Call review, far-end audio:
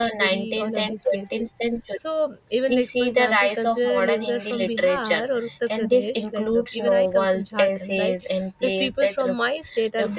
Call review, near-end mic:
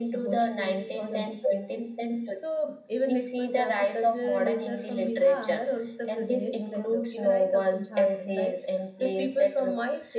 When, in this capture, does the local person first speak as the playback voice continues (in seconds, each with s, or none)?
none